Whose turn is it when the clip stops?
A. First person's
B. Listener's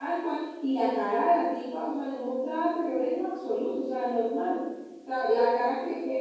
A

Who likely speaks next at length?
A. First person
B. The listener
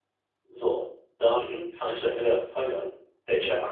A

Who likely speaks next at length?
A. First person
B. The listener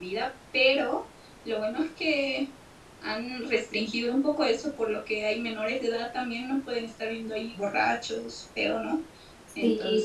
B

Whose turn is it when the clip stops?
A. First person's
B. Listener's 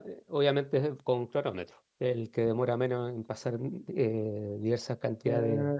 B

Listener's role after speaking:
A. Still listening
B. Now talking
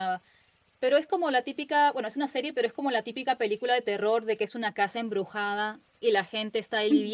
A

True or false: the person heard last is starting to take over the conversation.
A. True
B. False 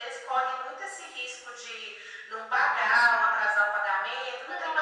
A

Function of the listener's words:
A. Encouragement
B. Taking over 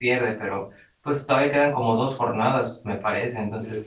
B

